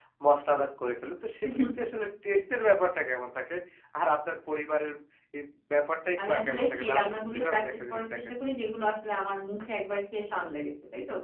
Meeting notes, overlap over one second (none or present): present